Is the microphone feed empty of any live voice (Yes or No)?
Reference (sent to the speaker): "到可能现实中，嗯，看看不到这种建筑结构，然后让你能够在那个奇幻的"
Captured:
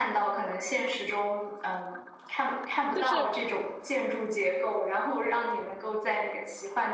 No